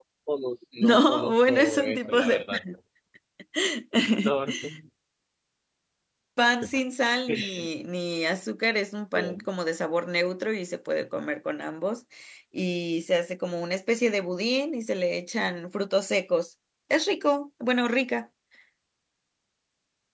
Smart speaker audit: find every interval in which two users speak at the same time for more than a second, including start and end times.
0.8-2.4

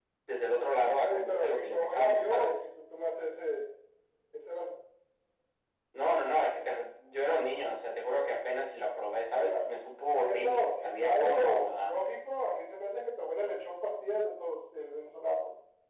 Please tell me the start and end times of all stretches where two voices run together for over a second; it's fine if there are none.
1.0-2.6, 10.1-12.0

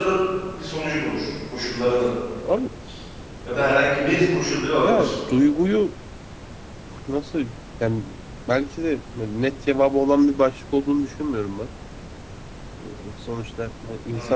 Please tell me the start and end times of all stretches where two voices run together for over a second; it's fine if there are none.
none

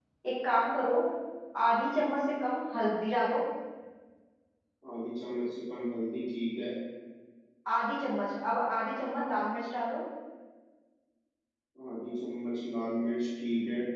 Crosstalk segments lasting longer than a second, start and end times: none

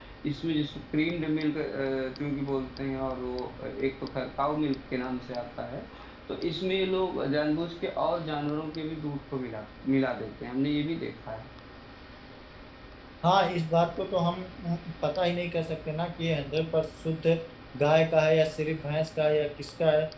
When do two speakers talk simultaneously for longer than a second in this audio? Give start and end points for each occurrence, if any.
none

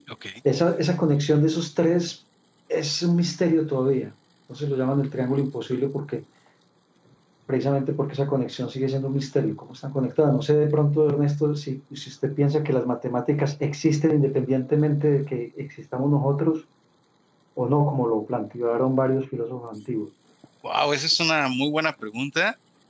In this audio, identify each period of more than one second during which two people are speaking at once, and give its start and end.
none

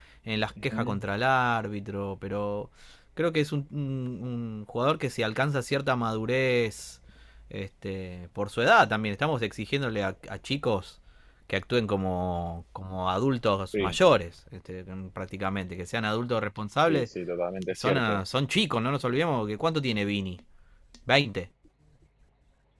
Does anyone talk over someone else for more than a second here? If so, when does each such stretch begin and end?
none

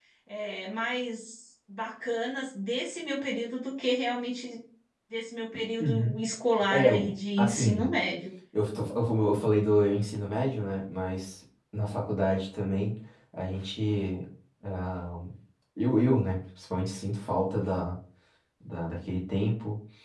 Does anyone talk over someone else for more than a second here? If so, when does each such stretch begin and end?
6.7-7.9

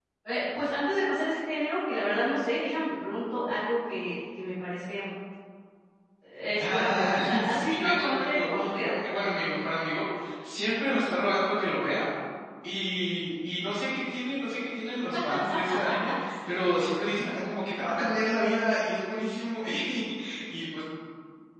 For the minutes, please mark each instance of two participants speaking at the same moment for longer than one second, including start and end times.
6.6-8.9

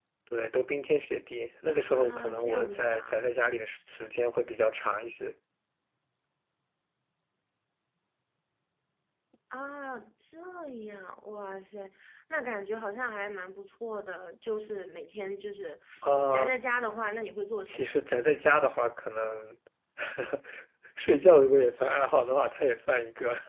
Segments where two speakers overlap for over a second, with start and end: 1.7-3.3

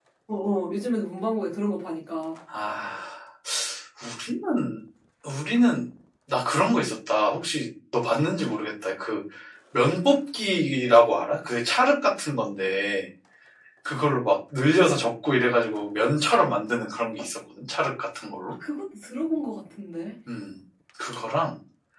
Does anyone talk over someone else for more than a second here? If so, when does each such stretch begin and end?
none

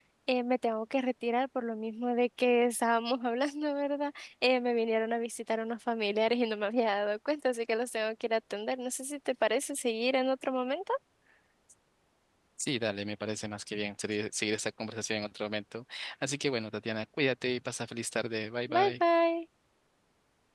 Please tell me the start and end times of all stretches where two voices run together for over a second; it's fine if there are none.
none

